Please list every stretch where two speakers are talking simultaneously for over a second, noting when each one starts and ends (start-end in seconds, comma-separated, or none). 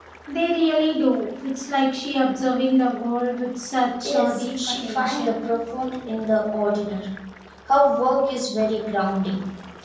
4.0-5.4